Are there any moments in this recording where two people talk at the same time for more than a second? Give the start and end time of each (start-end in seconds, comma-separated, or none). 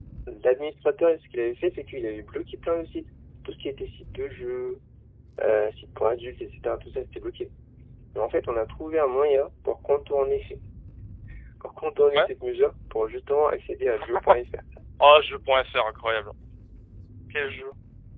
none